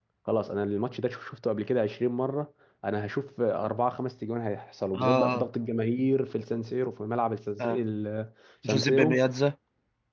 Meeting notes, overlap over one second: none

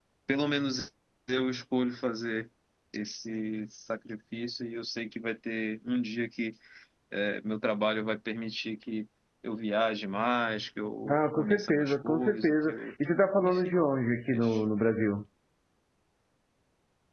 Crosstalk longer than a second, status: present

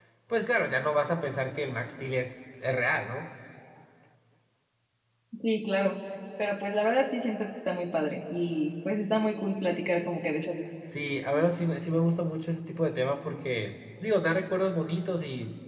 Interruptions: none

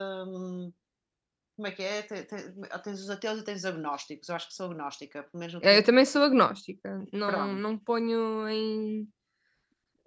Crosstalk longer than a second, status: none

